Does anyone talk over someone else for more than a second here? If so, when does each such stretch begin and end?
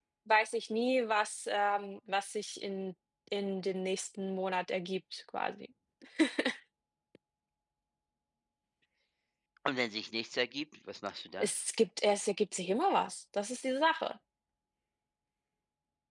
none

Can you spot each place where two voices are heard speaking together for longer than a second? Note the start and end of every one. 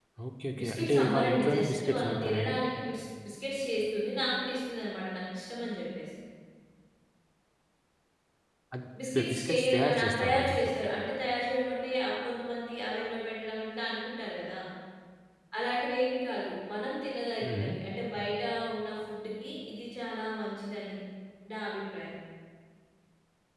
0.6-2.6, 9.1-10.7

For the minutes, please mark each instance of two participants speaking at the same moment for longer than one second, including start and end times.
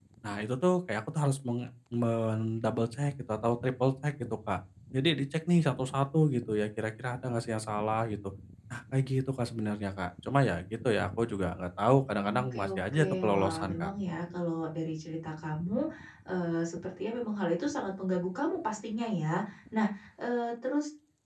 12.4-13.9

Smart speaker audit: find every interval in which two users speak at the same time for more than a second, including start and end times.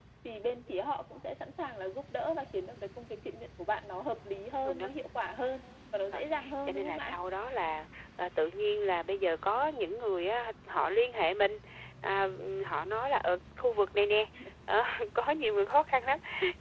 none

